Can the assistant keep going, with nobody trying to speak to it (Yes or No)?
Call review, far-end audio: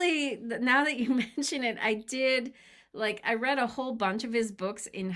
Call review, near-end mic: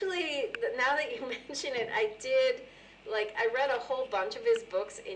Yes